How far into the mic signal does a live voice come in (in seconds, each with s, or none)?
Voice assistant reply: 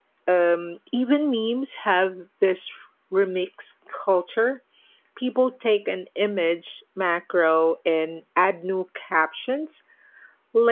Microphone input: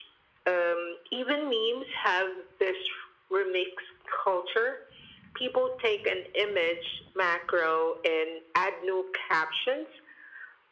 none